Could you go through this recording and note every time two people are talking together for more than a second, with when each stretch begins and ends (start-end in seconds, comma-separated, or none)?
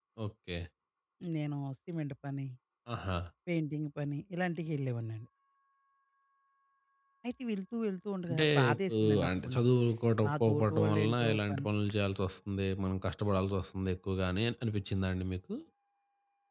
8.3-9.7, 10.3-11.7